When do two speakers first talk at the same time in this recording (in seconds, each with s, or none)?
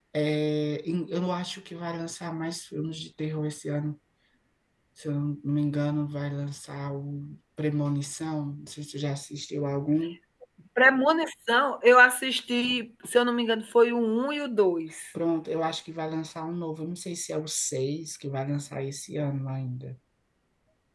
none